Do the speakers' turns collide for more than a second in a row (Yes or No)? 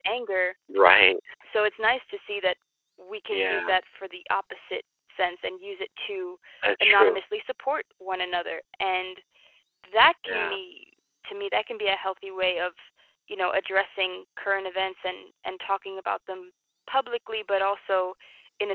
No